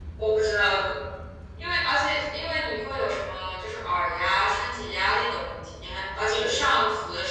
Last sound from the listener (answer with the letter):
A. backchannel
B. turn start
A